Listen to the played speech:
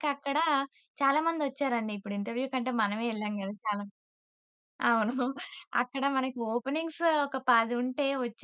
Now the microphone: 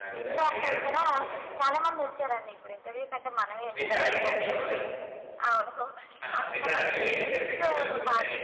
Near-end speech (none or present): present